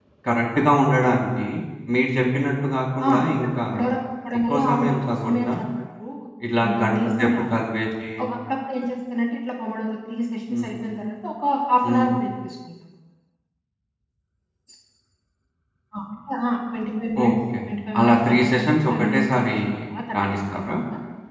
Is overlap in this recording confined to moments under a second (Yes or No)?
No